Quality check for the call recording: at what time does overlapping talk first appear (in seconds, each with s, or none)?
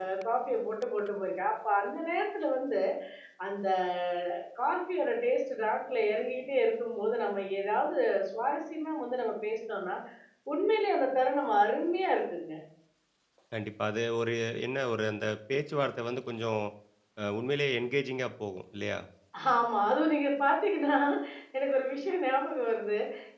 none